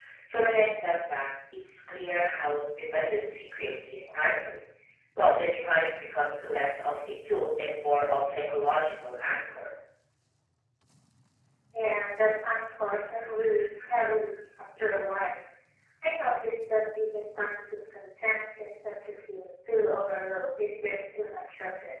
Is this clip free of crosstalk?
Yes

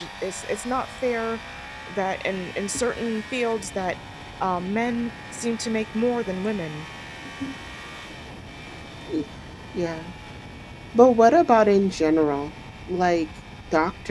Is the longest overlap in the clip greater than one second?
No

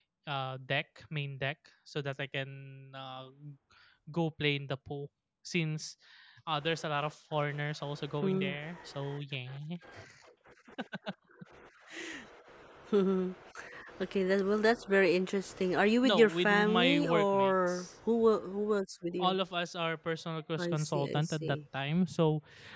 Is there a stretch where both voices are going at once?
Yes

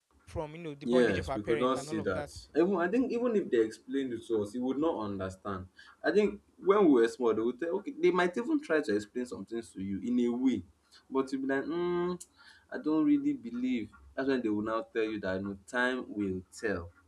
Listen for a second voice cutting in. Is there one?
Yes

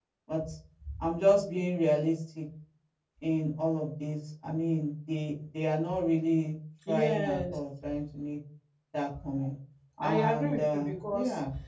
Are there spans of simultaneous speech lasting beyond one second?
Yes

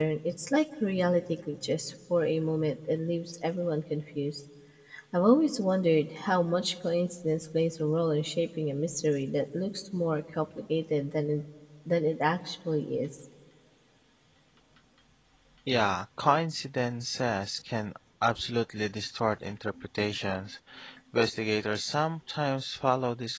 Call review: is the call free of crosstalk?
Yes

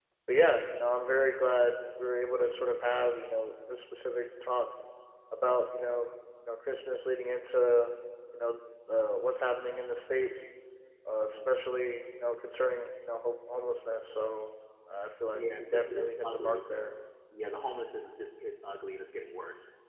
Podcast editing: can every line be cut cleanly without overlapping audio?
No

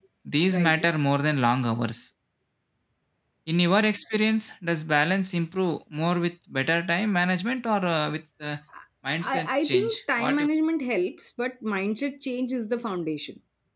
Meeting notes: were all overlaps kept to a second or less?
No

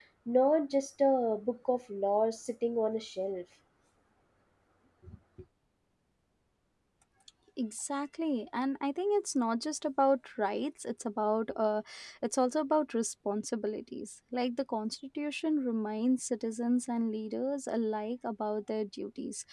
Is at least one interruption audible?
No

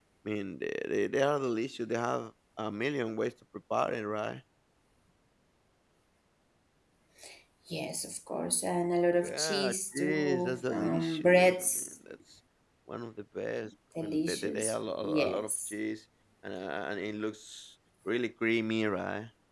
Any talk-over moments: Yes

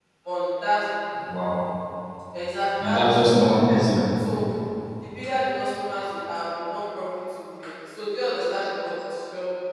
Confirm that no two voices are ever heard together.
No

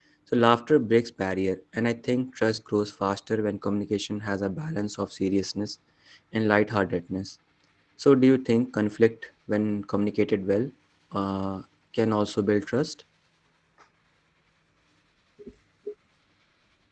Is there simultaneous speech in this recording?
No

